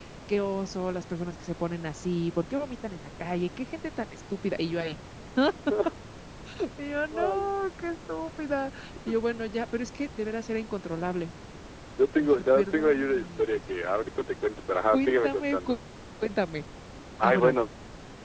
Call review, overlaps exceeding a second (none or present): present